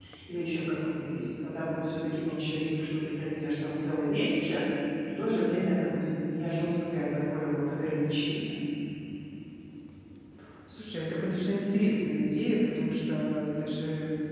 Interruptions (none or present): none